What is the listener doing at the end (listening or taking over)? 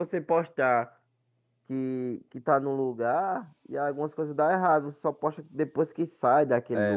taking over